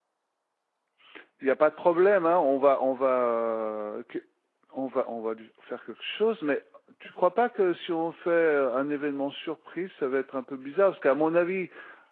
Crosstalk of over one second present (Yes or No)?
No